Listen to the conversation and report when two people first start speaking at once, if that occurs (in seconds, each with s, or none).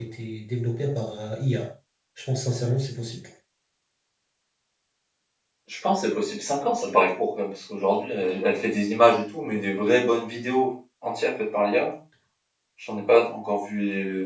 none